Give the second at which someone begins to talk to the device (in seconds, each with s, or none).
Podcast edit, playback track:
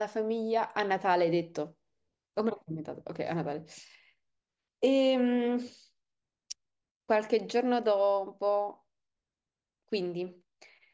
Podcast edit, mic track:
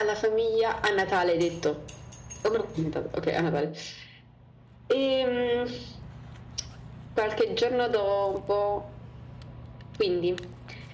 none